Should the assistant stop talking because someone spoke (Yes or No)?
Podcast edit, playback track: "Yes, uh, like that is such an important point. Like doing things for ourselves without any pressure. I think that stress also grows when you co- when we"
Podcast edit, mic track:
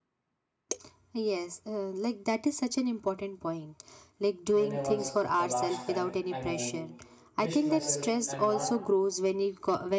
Yes